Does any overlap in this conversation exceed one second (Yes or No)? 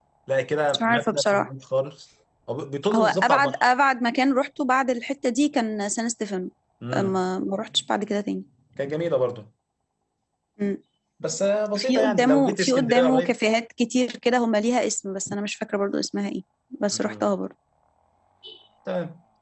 Yes